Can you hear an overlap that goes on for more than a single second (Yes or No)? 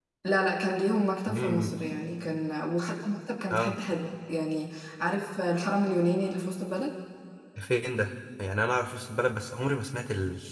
No